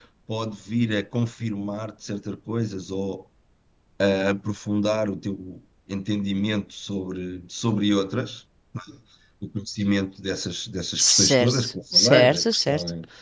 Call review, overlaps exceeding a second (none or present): present